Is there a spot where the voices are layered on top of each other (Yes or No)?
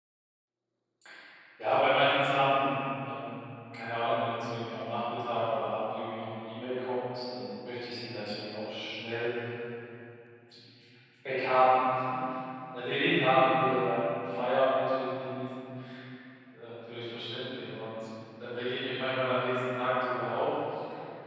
No